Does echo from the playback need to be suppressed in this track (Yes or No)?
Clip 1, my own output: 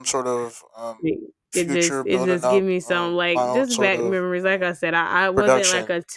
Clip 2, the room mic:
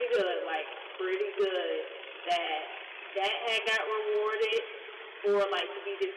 No